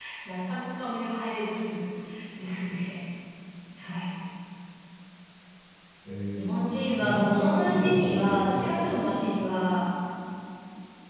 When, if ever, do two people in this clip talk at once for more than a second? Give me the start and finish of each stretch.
7.0-9.1

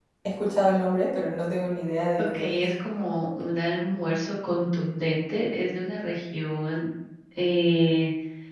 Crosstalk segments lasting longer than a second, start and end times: none

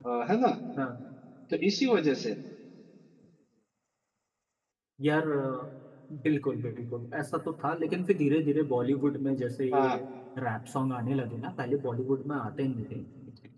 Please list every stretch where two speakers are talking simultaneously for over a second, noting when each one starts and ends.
none

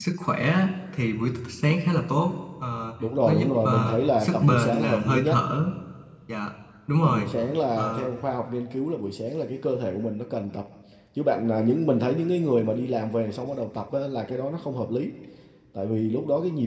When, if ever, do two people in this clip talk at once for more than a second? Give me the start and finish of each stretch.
3.2-5.4

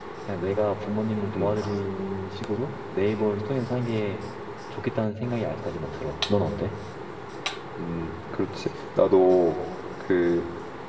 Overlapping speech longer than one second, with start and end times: none

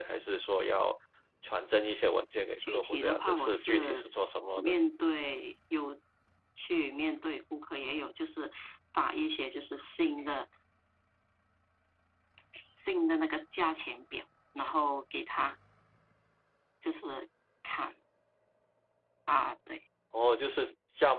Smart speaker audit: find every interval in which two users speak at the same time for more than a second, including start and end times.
2.6-4.1

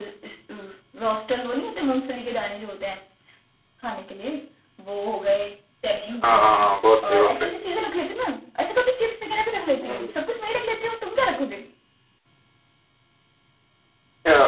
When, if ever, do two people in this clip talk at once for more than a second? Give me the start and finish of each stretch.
none

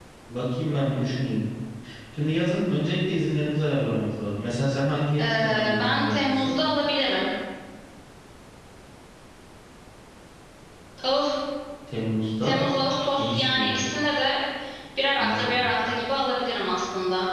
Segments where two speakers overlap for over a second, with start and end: 5.2-6.5

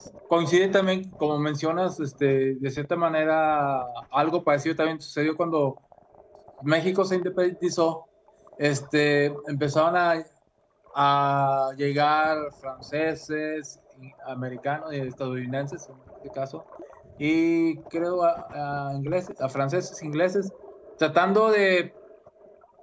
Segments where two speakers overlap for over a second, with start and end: none

